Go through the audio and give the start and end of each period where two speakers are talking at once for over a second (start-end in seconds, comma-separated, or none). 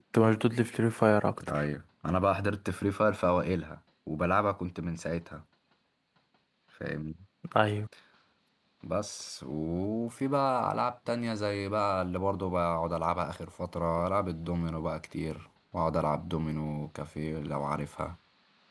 none